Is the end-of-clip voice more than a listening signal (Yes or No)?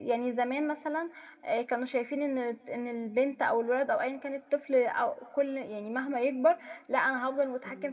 No